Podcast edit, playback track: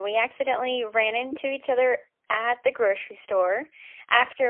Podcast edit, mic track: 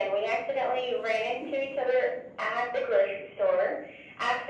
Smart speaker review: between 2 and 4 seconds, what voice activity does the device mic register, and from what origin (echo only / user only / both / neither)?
echo only